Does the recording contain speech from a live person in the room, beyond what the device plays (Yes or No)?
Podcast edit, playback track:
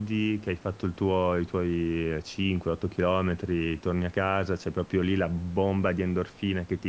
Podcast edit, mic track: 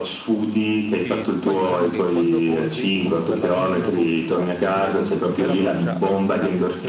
Yes